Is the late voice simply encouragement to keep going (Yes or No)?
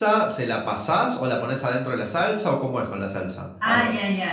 No